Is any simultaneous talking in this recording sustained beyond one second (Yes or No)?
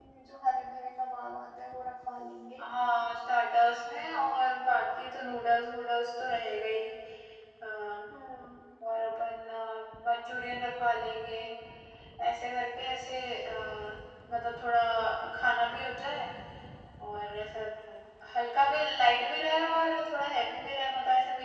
No